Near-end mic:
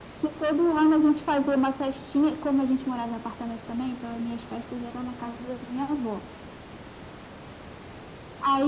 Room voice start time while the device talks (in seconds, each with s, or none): none